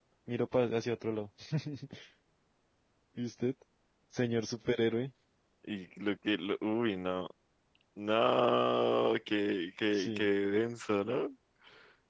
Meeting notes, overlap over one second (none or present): none